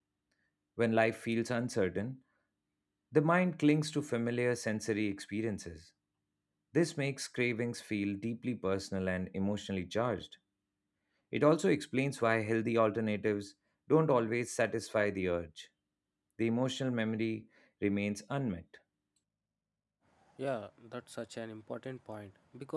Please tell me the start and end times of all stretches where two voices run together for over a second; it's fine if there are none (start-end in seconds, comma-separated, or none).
none